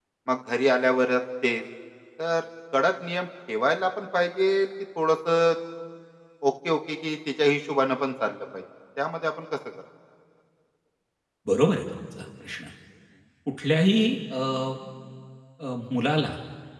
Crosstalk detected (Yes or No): No